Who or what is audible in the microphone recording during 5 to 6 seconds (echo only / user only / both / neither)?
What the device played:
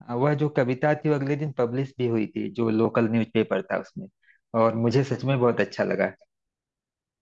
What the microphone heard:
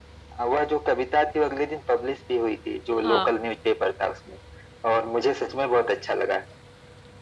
echo only